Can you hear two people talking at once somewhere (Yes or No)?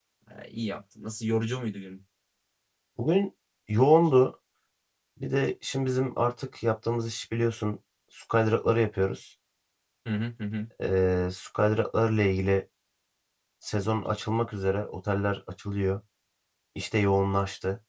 No